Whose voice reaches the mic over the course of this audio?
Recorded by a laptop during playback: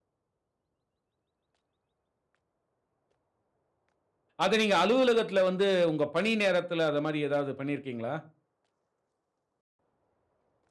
user only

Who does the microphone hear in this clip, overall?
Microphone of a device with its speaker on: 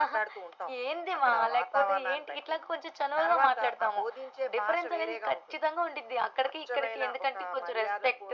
echo only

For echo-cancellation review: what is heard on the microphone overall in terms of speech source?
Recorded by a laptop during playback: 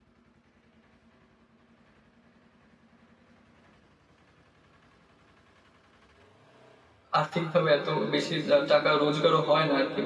user only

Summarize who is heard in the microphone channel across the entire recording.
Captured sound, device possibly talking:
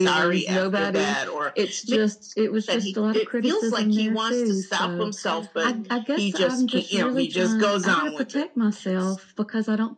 both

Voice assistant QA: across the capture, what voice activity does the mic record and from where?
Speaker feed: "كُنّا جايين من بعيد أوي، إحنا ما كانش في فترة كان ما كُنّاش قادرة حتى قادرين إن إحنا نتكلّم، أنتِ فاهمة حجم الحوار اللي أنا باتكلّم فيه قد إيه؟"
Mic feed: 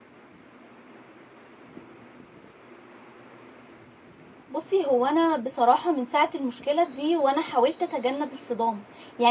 user only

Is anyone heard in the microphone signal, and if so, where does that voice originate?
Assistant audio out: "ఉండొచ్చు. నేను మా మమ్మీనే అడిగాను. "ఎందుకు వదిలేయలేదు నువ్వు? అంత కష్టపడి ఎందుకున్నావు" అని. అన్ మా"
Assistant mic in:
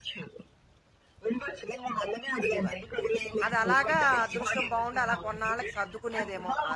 both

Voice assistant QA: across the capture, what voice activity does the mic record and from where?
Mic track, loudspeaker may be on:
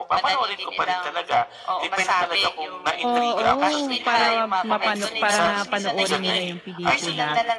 both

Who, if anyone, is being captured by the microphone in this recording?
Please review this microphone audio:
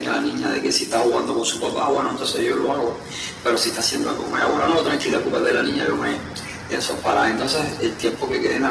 echo only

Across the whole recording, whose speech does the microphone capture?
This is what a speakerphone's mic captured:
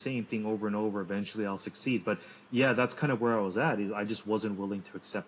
echo only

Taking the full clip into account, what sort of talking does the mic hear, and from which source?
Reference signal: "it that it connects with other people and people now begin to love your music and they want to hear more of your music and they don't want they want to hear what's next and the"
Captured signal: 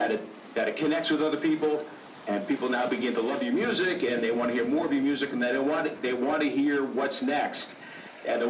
echo only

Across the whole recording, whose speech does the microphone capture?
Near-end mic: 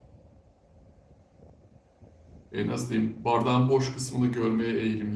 user only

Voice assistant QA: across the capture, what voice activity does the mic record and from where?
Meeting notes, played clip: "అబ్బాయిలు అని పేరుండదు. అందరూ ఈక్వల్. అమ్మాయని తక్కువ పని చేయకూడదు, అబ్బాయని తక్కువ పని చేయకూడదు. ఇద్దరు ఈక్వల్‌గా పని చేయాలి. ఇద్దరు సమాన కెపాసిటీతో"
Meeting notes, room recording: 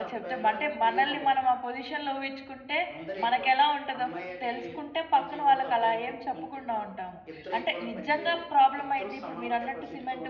both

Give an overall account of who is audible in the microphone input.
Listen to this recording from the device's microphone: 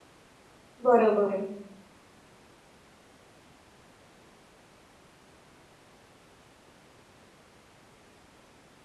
user only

